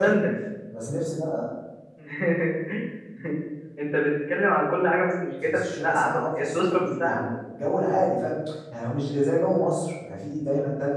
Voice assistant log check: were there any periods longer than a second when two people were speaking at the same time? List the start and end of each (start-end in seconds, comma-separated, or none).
5.4-7.2